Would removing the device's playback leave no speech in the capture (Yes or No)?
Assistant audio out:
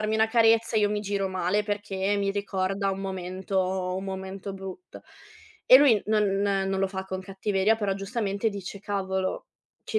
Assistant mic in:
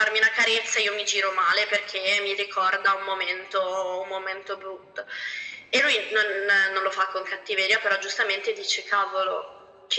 Yes